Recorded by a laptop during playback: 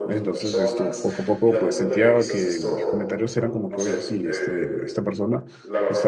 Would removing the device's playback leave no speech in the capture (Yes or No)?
No